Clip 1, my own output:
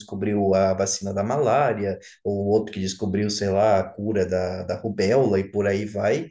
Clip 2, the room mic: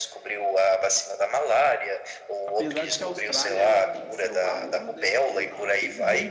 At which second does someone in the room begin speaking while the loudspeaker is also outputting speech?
2.4 s

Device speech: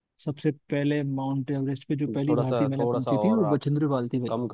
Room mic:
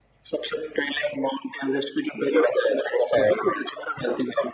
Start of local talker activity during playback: none

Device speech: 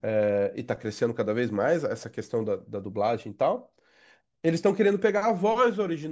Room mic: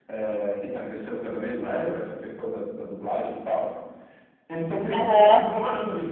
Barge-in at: 4.9 s

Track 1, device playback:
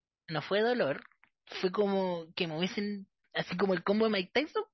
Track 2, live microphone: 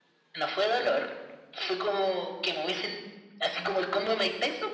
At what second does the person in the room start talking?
none

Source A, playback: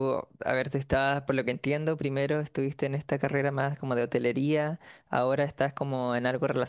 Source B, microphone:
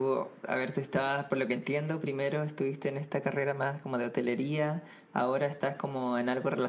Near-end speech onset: none

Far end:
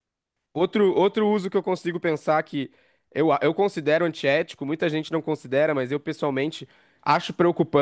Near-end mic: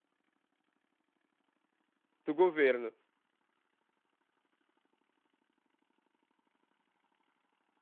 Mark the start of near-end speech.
2.2 s

